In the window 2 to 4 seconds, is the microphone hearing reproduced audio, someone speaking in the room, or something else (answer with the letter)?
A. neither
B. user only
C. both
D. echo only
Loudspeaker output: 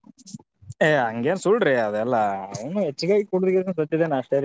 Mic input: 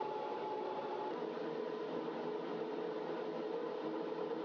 A